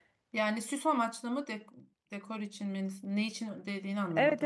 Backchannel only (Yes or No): No